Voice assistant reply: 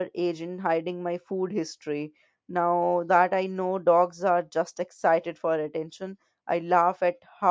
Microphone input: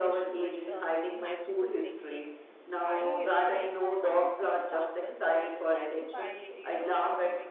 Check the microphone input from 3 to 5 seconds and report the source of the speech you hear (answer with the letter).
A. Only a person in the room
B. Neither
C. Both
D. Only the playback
C